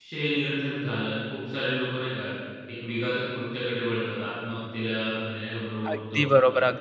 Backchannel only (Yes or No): No